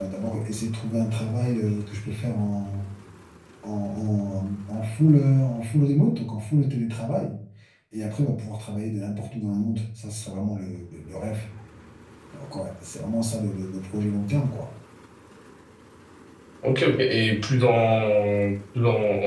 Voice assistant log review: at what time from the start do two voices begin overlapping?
none

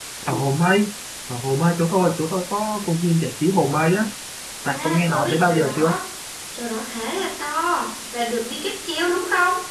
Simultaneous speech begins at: 4.7 s

